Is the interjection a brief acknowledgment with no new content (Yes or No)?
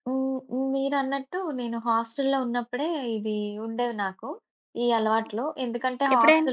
Yes